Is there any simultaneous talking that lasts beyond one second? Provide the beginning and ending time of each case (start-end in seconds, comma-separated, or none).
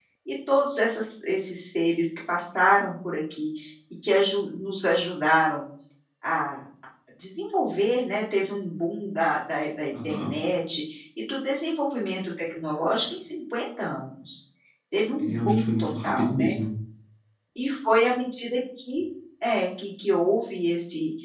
15.2-16.6